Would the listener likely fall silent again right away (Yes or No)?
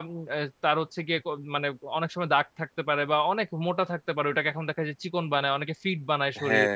No